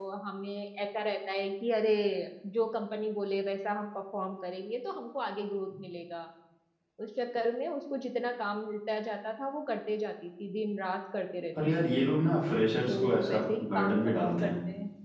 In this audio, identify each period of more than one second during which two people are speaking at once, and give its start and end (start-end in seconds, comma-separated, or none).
12.9-14.5